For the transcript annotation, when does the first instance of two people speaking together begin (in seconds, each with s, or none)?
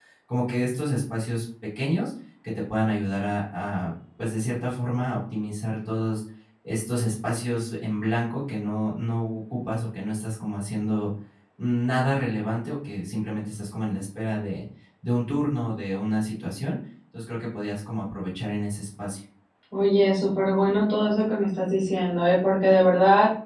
none